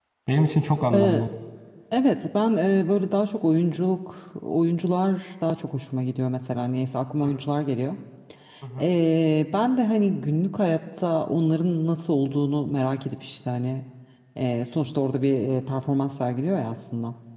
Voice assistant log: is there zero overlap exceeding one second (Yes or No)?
Yes